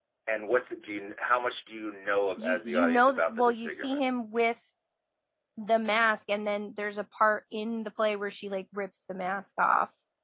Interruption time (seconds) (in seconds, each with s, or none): 2.4 s